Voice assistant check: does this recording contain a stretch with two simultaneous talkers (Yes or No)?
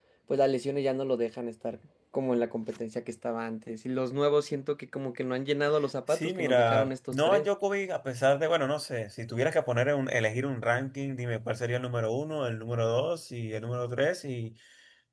Yes